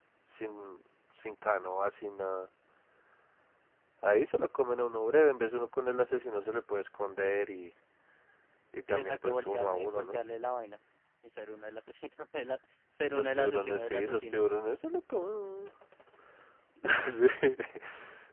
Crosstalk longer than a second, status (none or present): present